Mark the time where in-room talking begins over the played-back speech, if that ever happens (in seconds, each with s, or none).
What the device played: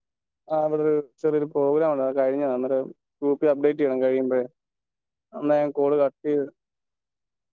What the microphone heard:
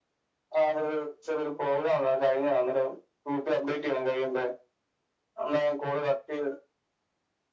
none